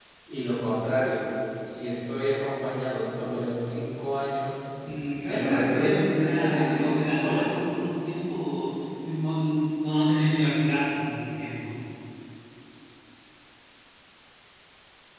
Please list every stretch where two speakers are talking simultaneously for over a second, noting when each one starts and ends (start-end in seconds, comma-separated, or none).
5.3-7.5